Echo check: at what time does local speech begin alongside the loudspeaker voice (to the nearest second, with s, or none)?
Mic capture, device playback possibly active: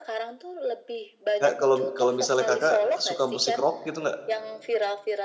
1 s